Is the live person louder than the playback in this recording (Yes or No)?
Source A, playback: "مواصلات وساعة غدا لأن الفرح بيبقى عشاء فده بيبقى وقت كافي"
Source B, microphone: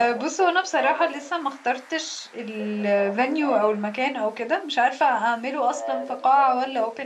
Yes